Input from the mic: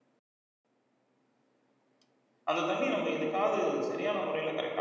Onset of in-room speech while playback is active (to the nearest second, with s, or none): 3 s